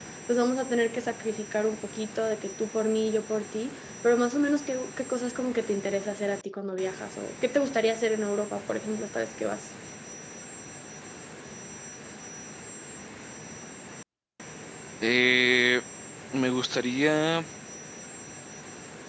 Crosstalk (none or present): none